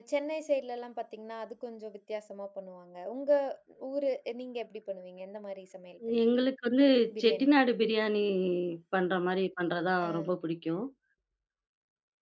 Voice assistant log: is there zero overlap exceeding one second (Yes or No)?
Yes